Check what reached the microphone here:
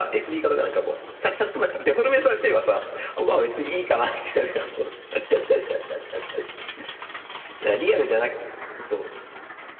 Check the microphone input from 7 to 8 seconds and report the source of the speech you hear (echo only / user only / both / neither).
echo only